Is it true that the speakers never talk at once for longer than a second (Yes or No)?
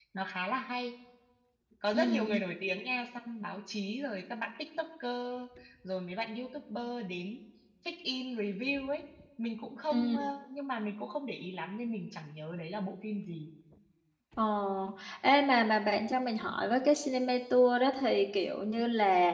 Yes